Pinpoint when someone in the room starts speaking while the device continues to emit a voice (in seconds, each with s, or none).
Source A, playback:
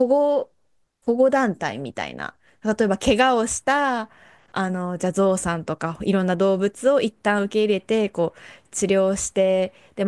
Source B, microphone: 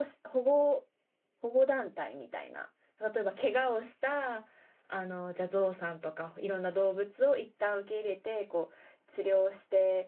none